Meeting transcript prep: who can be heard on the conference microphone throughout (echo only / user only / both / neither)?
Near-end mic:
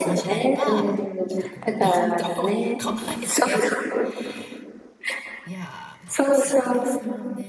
both